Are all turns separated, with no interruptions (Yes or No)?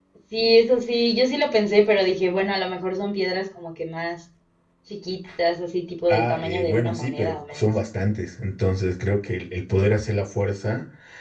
No